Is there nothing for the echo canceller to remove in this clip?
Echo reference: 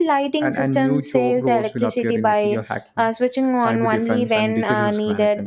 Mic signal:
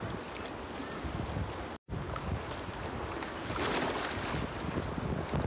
Yes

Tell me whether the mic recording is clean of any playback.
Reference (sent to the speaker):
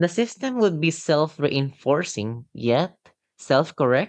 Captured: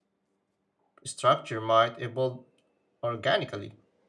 Yes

